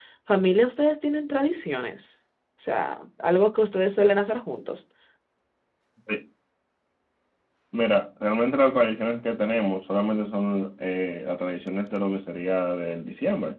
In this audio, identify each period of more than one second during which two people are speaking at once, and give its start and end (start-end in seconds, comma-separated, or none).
none